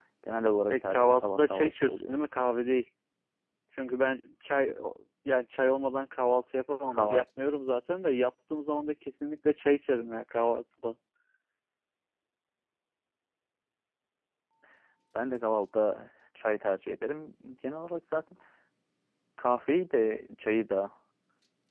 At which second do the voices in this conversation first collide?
1 s

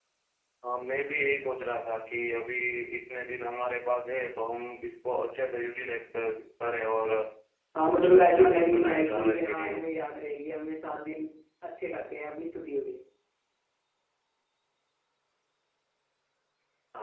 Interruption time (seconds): 8 s

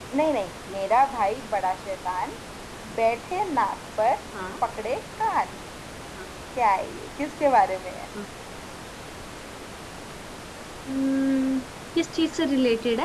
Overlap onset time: none

